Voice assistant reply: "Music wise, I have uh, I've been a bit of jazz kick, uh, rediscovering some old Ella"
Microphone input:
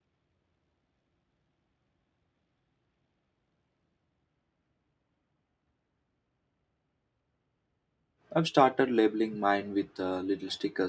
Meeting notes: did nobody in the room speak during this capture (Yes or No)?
No